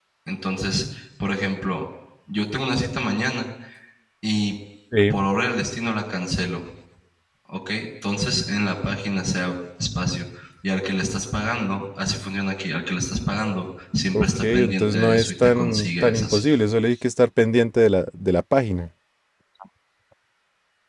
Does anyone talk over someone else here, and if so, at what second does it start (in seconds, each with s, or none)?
14.1 s